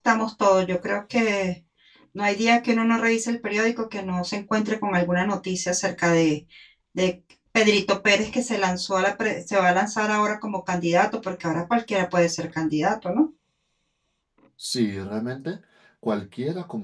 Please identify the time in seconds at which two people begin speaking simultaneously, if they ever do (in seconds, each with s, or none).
none